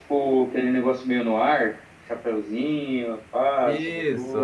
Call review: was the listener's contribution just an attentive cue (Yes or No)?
No